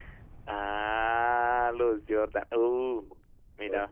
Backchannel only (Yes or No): Yes